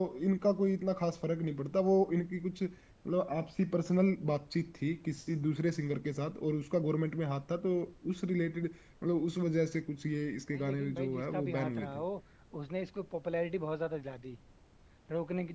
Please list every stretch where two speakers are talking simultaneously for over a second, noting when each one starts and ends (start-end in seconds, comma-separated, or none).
10.5-12.0